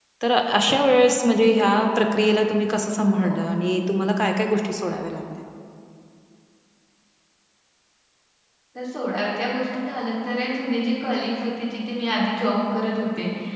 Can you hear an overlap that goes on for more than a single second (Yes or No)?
No